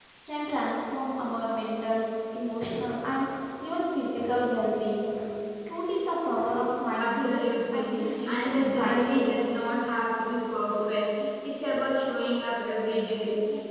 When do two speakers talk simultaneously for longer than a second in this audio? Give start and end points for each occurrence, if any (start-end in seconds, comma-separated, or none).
7.0-9.7